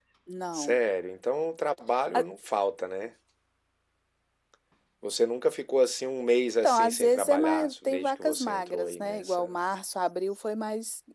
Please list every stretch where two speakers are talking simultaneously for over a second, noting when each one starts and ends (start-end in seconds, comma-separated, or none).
6.6-9.6